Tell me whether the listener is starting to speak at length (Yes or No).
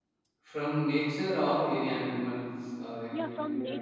Yes